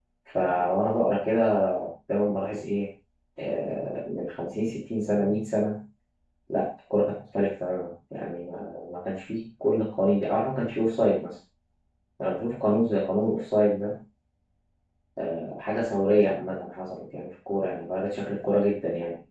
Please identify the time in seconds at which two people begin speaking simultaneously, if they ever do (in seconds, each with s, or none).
none